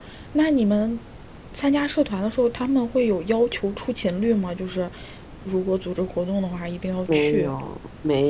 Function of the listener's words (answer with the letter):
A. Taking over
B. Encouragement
A